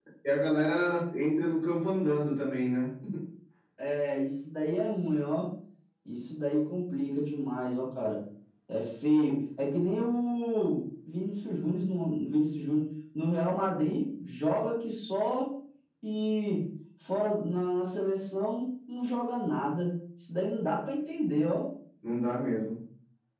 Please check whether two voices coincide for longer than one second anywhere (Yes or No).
No